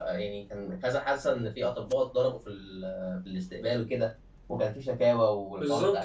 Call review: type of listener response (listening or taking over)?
taking over